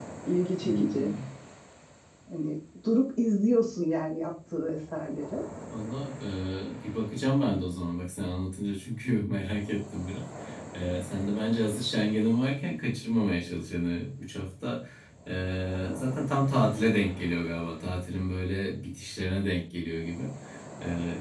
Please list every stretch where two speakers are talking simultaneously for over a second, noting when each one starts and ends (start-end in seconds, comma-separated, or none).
none